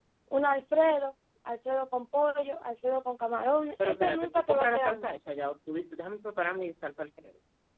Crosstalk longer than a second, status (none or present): present